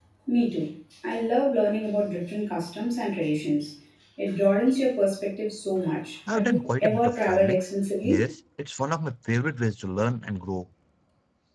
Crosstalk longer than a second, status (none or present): present